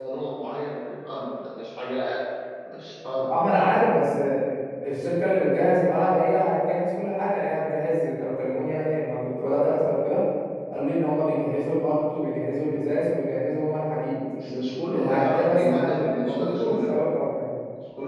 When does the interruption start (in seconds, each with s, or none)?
14.9 s